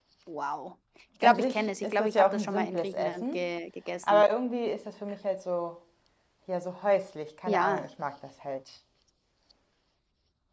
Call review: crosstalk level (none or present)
present